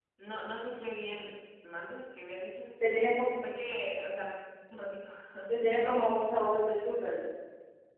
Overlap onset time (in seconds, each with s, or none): none